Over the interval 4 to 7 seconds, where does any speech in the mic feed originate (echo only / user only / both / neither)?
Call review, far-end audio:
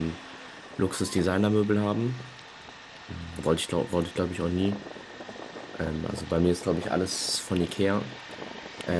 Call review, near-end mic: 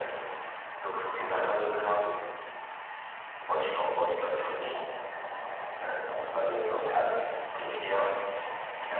echo only